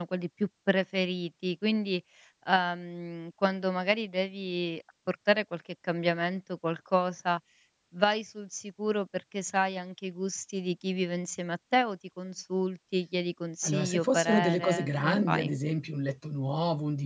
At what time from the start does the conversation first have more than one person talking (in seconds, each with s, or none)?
13.6 s